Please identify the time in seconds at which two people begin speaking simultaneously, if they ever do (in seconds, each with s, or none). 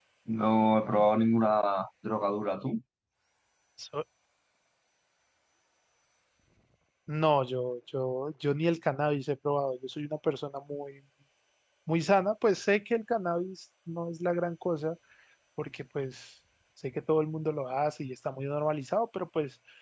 none